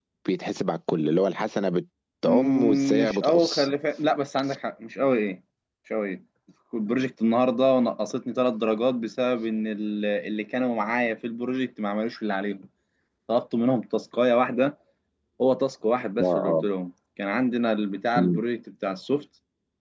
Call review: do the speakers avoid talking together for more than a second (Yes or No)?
No